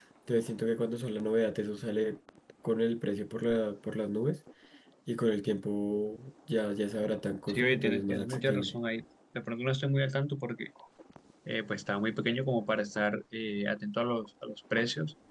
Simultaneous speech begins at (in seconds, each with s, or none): 7.5 s